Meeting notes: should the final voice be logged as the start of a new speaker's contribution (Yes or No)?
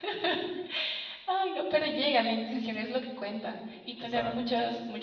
No